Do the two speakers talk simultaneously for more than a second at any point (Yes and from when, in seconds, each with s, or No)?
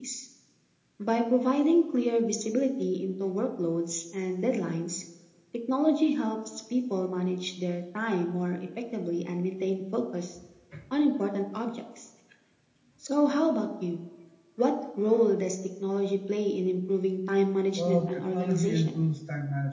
Yes, from 17.8 s